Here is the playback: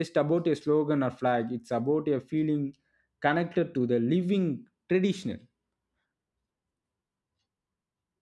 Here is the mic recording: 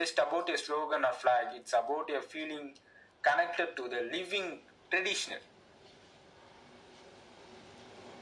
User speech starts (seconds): none

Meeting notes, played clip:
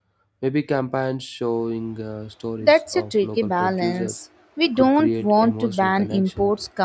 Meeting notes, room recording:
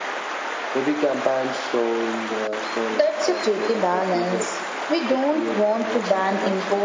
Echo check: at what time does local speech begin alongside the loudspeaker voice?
none

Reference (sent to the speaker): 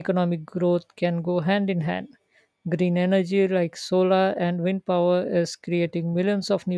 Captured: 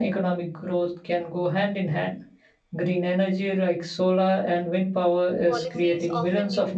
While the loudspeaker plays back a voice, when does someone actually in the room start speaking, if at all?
5.4 s

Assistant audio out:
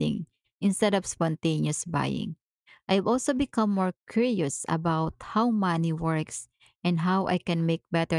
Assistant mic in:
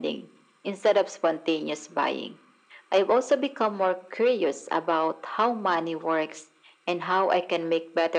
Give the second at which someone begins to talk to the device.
none

